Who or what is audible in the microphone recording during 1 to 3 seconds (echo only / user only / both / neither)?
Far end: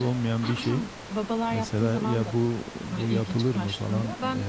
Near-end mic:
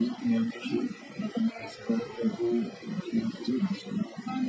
echo only